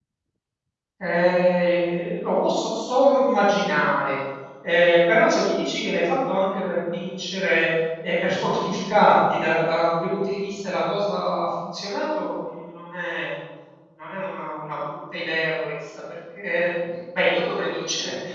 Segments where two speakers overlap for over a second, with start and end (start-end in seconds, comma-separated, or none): none